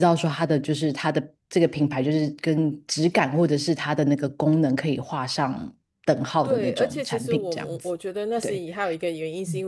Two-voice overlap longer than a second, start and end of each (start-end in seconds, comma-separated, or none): 6.4-7.8